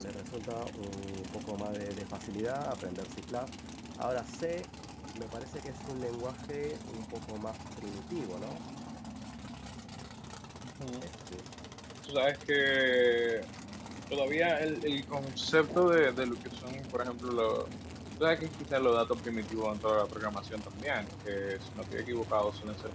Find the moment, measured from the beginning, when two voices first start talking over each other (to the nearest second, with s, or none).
none